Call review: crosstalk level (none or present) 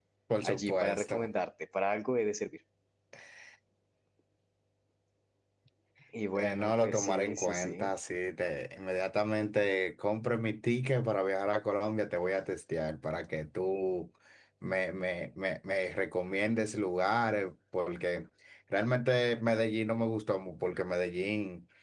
present